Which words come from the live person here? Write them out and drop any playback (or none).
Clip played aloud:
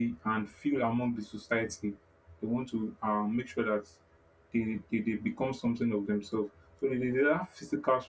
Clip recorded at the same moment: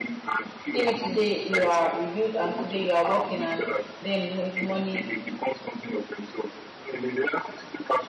maybe today you are a youth and today you are working and then mo- money